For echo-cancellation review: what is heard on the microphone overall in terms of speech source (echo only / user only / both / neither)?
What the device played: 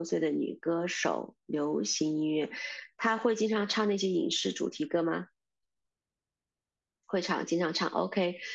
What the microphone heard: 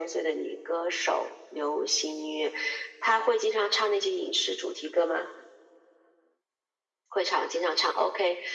echo only